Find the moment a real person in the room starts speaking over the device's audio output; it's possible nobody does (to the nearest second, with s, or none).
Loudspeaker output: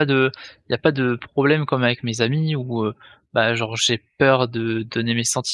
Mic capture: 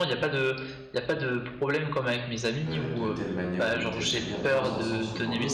3 s